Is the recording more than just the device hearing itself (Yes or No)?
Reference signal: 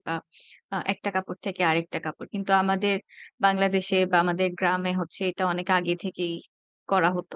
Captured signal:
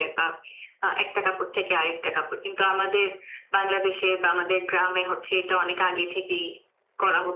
No